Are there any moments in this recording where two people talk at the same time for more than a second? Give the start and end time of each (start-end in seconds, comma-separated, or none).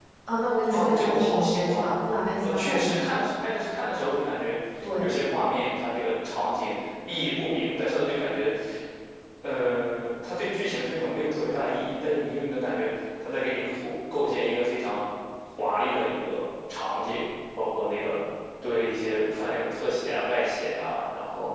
0.7-1.9